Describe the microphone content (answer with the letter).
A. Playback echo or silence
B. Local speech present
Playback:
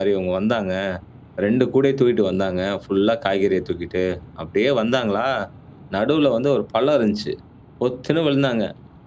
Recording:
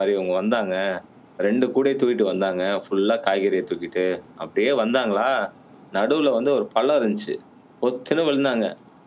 A